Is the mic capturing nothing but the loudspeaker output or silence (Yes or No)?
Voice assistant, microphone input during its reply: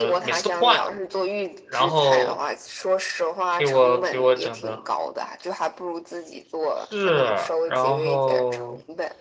No